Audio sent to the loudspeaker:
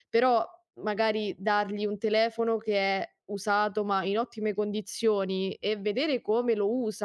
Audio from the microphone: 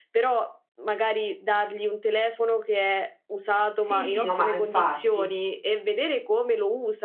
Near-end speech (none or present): present